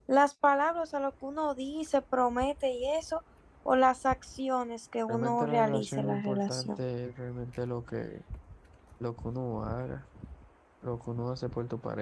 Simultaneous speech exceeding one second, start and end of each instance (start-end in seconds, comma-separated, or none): 5.1-6.8